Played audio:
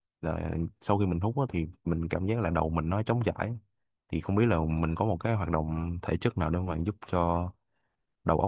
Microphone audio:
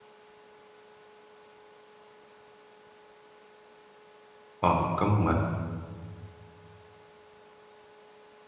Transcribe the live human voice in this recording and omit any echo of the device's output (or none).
Ờ, cảm ơn bạn.